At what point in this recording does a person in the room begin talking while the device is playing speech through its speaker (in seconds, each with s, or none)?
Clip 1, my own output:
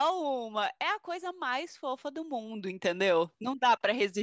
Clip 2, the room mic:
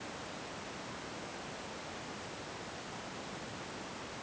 none